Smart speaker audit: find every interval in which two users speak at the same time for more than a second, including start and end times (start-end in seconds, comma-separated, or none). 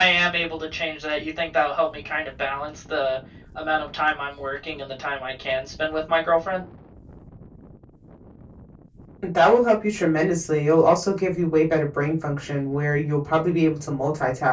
none